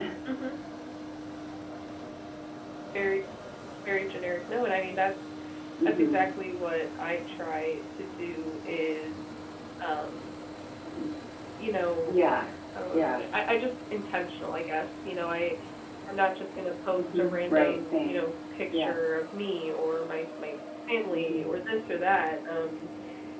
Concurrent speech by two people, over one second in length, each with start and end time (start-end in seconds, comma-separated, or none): 17.0-18.2